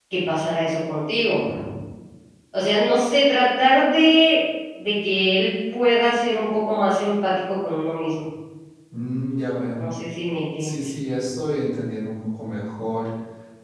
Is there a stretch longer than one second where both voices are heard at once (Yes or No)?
No